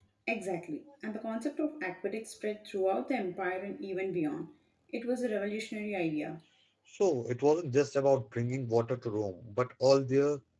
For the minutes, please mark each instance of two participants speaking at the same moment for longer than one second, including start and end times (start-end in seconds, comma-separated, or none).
none